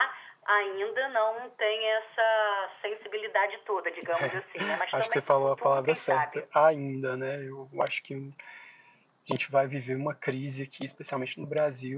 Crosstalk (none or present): present